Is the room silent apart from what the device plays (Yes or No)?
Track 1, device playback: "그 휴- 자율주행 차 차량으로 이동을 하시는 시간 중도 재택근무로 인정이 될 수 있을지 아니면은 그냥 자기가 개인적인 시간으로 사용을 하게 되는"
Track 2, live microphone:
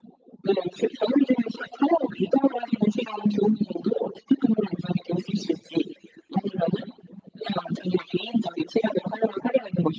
Yes